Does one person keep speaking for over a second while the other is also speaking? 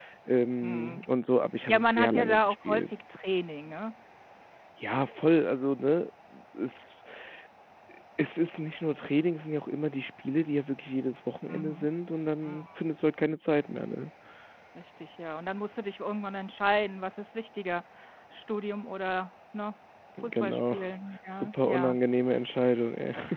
Yes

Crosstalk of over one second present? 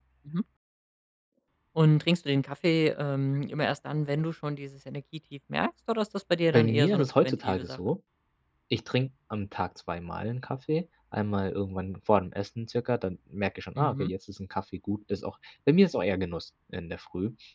Yes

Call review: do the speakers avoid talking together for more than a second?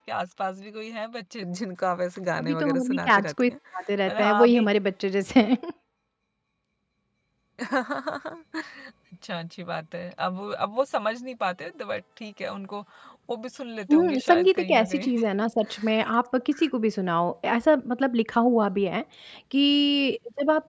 No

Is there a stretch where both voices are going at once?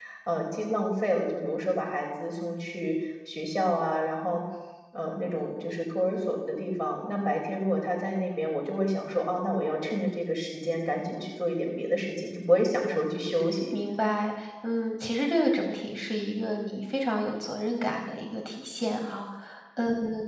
No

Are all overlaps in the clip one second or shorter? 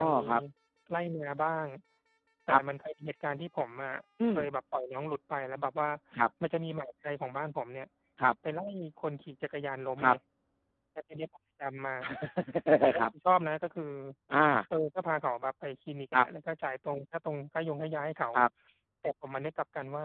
Yes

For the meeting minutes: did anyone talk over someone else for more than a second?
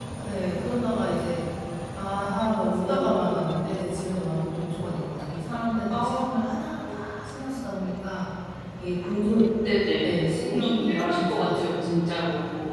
Yes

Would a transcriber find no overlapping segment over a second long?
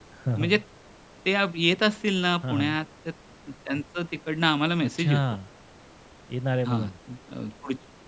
Yes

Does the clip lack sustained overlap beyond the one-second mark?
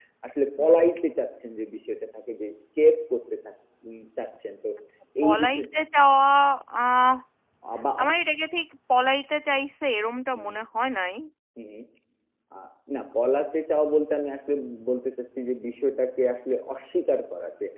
Yes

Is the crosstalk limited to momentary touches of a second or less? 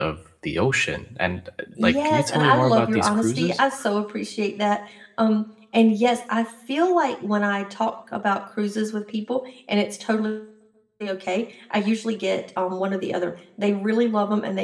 No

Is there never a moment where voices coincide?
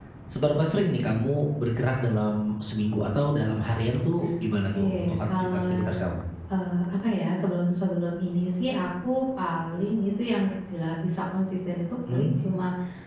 No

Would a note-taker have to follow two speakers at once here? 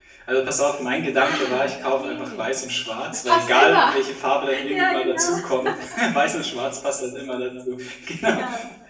Yes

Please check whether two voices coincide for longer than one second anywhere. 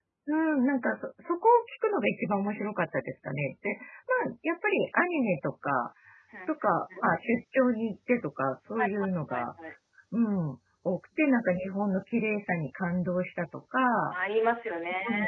No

